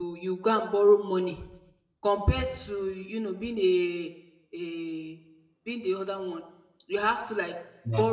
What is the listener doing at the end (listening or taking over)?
listening